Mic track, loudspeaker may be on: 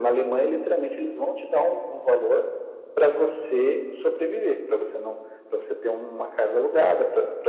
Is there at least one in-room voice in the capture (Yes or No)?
No